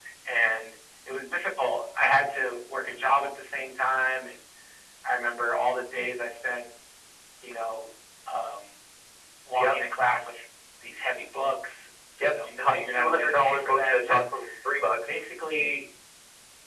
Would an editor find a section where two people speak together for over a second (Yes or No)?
Yes